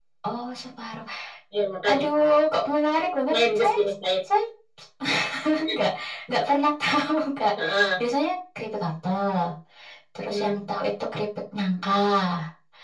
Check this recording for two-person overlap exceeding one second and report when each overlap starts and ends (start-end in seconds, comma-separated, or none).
none